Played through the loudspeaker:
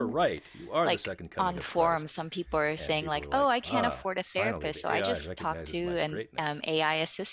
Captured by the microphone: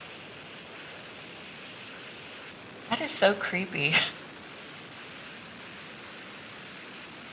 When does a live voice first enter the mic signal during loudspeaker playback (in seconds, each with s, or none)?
2.9 s